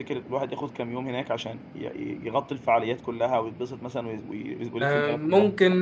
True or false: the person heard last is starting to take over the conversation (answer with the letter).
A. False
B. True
B